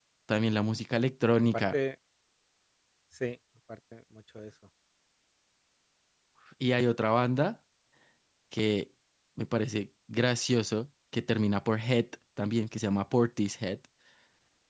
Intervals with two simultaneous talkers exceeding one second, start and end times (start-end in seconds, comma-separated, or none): none